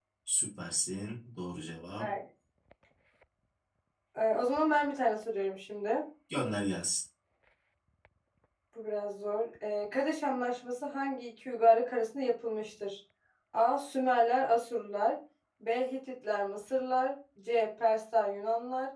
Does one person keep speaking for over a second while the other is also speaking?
No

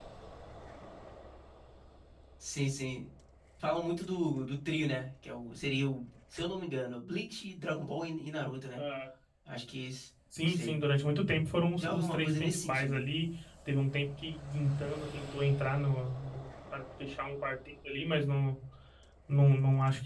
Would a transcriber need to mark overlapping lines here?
Yes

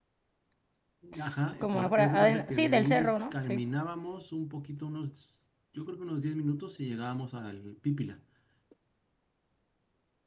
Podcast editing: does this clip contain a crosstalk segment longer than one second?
Yes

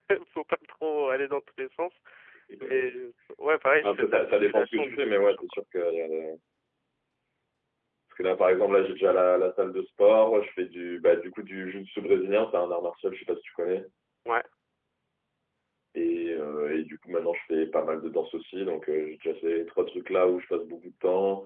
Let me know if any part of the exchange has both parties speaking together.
Yes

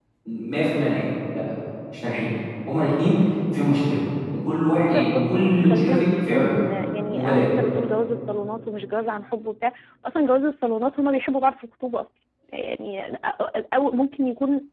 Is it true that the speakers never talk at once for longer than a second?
No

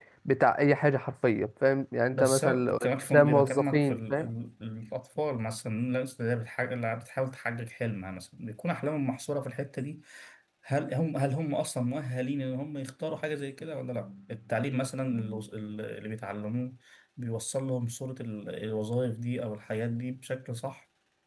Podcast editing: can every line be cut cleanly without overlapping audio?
No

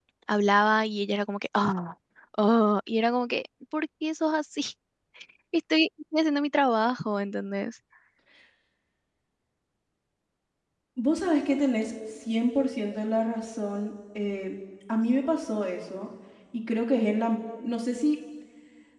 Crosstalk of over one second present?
No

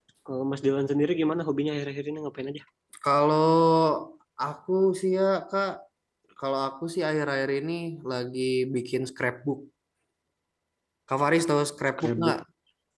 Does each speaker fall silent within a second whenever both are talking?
Yes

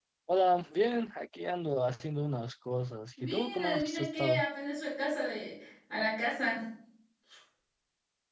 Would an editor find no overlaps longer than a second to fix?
No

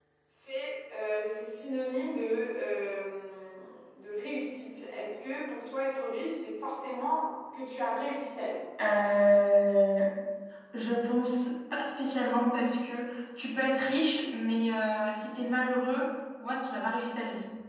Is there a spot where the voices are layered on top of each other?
No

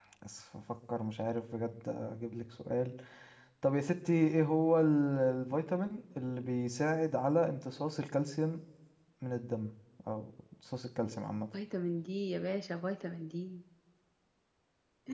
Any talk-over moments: No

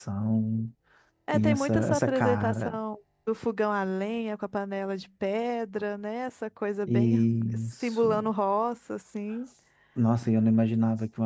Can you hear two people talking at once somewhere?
Yes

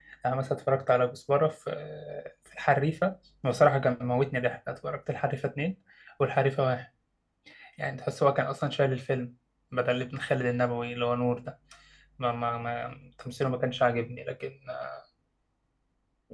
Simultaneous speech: No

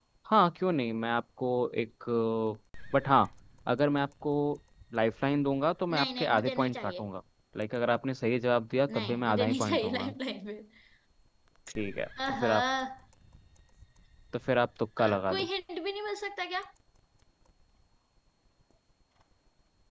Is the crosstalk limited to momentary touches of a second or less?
No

